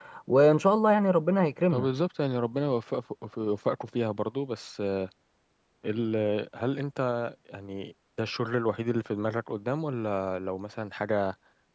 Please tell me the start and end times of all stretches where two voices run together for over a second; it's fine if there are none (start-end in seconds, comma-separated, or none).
none